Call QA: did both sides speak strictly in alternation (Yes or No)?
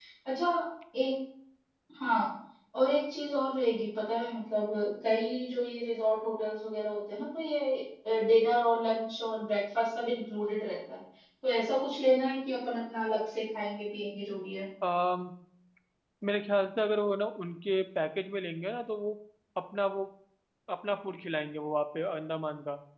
Yes